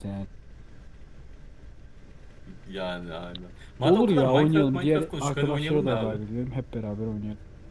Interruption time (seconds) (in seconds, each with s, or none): 3.8 s